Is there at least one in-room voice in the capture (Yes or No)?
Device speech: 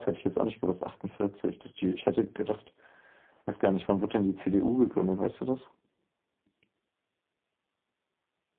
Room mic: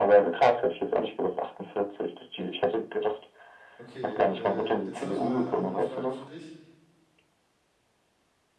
Yes